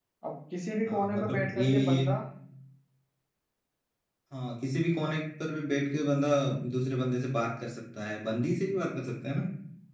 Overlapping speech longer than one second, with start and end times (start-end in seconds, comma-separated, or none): 0.9-2.1